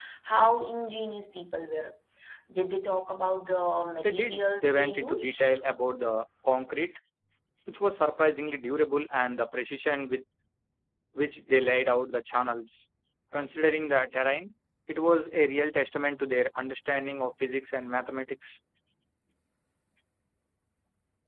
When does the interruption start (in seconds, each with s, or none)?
4.0 s